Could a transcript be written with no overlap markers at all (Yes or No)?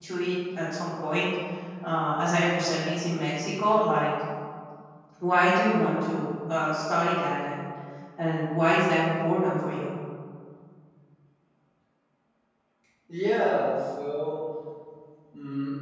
Yes